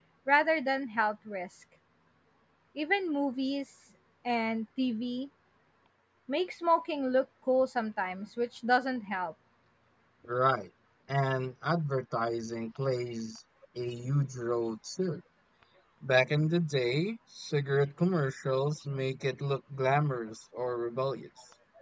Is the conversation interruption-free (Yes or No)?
Yes